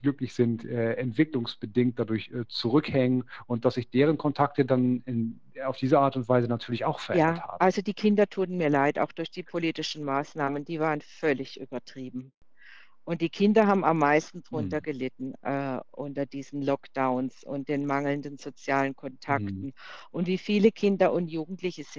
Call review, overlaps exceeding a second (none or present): none